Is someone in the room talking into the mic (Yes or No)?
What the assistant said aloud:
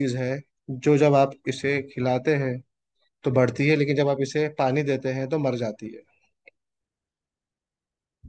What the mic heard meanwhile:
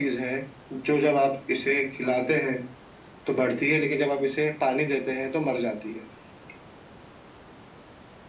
No